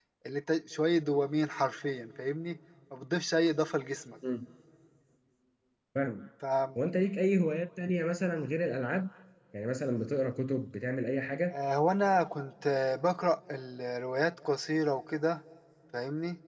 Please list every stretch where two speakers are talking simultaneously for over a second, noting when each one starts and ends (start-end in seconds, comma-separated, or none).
none